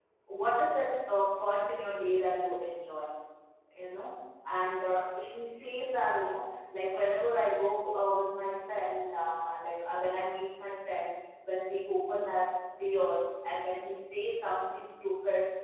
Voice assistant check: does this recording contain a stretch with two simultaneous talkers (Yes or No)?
No